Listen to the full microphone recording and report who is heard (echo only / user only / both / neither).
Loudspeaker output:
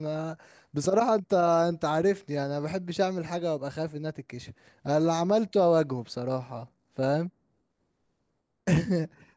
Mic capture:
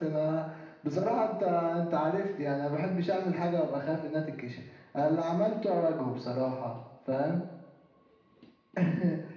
echo only